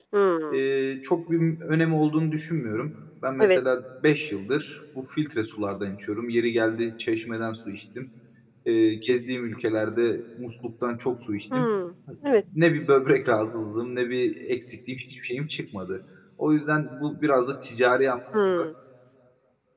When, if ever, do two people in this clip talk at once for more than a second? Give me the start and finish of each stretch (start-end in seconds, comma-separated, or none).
none